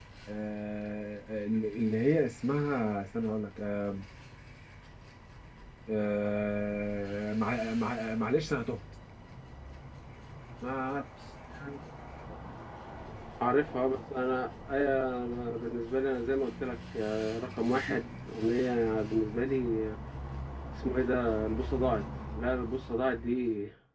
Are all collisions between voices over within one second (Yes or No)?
Yes